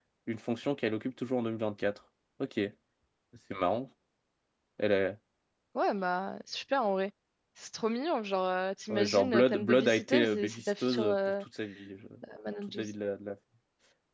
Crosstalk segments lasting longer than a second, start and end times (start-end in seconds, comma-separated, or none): 8.9-11.4